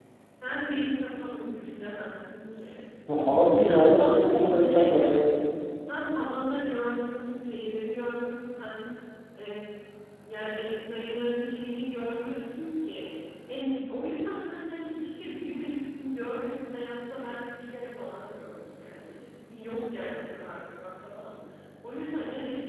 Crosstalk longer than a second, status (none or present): present